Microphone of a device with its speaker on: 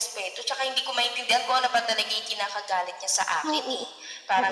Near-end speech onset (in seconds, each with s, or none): 3.4 s